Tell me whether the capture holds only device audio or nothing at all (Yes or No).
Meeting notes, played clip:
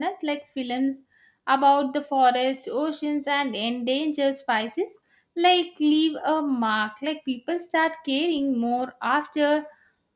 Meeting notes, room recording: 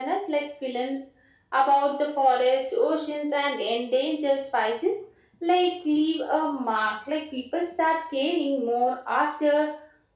Yes